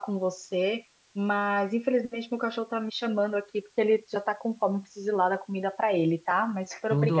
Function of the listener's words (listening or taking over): taking over